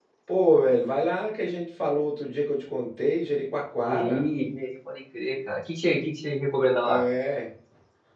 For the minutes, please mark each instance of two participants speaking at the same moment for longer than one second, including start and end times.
none

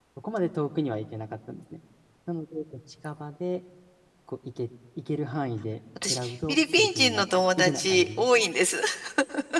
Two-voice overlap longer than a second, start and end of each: 6.1-8.3

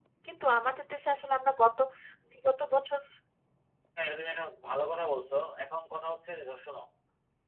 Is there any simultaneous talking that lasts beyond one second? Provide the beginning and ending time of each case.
none

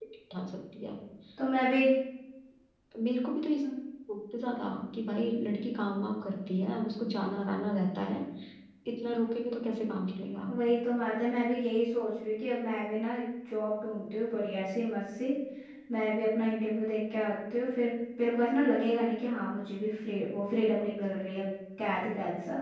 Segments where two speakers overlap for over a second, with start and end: none

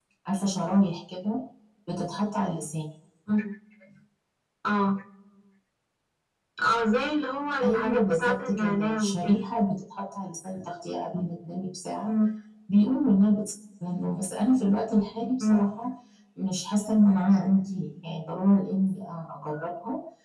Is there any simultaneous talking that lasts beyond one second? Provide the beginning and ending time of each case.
7.6-9.4

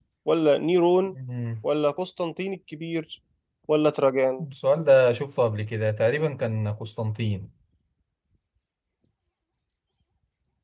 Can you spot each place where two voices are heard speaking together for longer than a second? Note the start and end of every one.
none

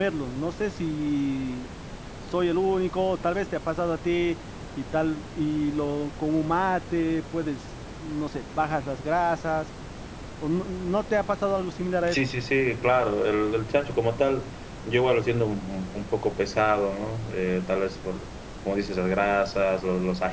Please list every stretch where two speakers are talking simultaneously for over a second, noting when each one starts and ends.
none

